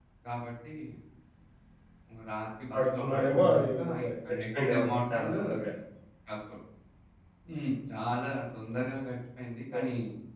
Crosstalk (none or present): present